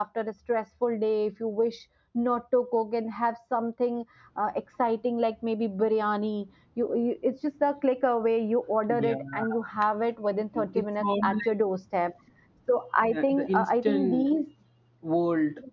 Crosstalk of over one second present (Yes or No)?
Yes